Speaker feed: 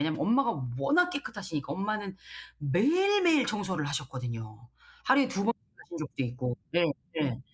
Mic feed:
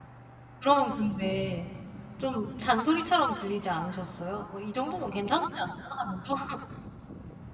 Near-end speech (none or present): present